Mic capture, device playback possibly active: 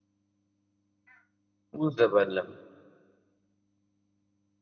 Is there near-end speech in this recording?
Yes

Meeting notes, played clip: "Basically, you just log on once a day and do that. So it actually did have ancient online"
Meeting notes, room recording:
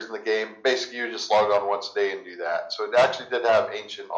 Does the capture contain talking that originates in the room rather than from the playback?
No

